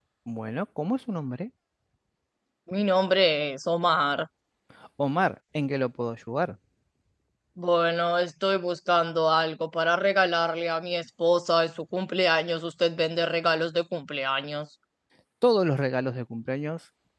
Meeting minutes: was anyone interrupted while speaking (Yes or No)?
No